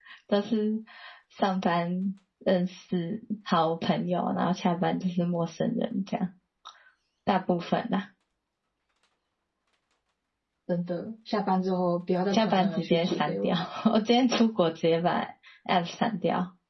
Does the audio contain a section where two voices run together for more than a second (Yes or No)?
Yes